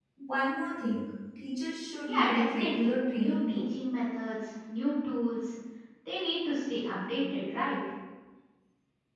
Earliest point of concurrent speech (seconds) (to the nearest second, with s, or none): 2 s